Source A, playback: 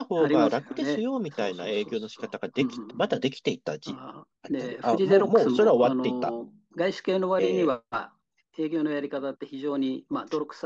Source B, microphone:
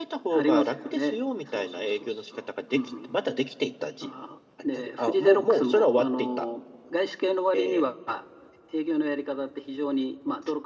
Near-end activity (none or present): none